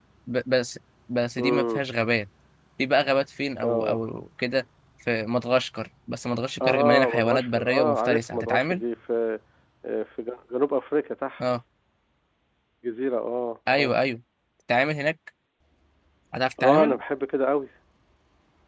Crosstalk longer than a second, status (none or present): present